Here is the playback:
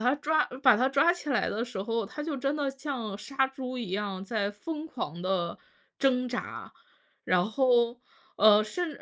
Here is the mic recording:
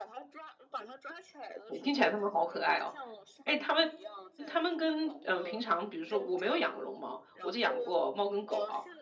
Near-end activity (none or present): present